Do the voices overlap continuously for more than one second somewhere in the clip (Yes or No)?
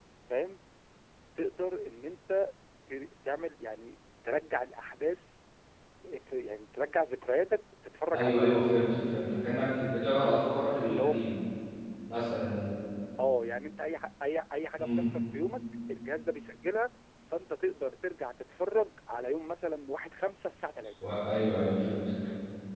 No